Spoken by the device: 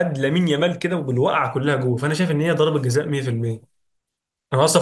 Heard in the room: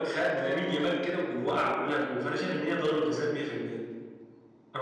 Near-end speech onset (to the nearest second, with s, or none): none